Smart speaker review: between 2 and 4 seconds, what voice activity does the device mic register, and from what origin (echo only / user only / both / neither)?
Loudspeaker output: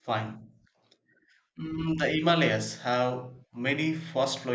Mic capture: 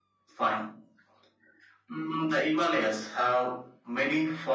echo only